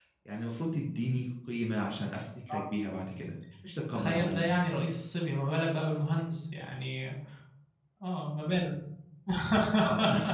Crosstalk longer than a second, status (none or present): none